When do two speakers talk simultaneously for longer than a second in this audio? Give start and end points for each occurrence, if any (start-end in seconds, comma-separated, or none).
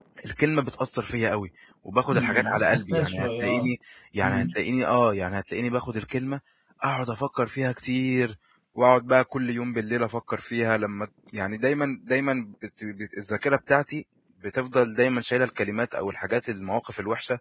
2.1-3.7